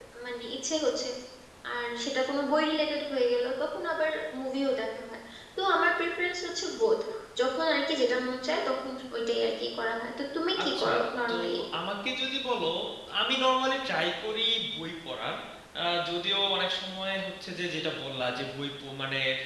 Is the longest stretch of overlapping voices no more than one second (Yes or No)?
Yes